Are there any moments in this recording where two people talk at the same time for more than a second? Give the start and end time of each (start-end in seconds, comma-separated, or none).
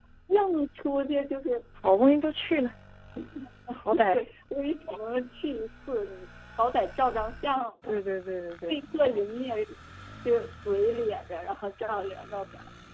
none